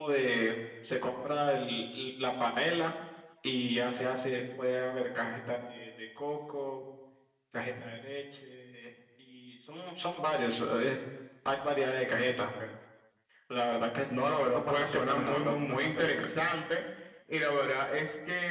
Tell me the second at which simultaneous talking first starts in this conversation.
14.2 s

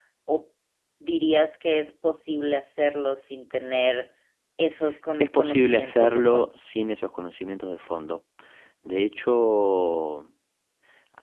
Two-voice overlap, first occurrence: 5.2 s

